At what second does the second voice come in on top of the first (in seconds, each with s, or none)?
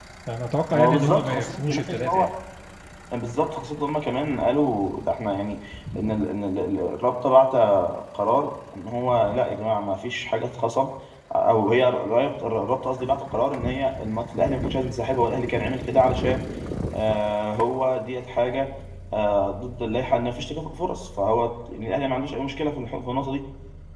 0.7 s